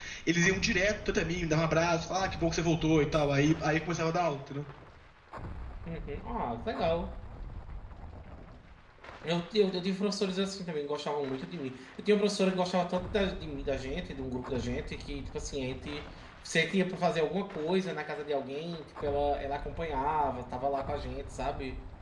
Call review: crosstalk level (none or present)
none